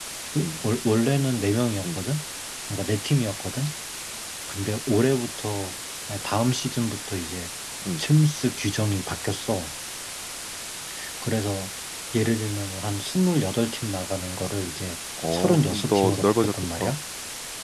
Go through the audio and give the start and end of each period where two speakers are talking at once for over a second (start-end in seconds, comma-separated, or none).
15.3-16.9